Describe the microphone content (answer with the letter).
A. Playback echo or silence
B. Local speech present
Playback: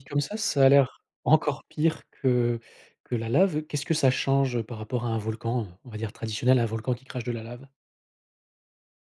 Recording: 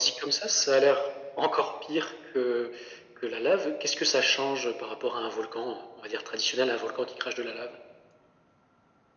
A